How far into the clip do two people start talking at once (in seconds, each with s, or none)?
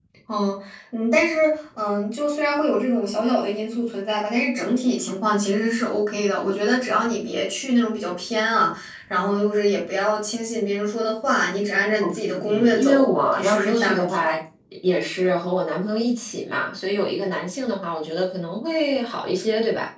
12.0 s